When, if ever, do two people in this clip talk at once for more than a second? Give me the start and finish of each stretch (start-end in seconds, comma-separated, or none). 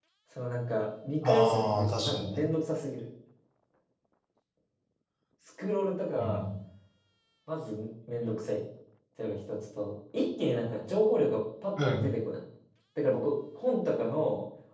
1.2-2.4